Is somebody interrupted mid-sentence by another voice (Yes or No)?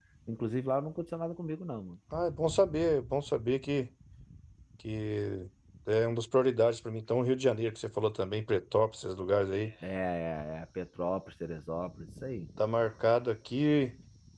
No